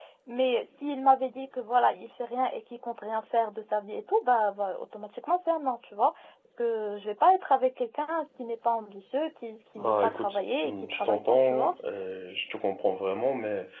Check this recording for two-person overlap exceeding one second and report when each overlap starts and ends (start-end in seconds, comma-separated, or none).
9.8-11.7